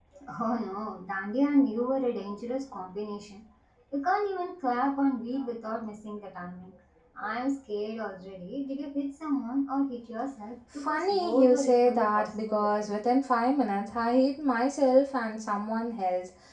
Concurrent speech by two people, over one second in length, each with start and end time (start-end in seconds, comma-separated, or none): 10.7-12.9